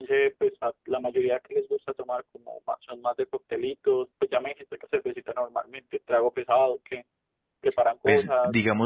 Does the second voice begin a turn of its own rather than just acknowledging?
Yes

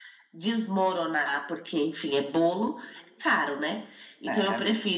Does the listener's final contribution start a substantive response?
No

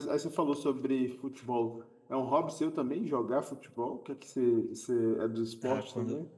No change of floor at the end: No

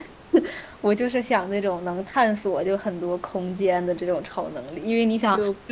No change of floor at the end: Yes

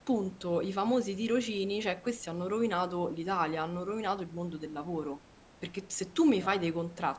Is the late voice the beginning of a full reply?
No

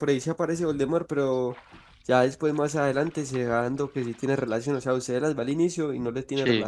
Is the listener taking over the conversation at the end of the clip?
No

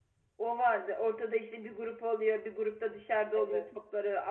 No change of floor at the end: Yes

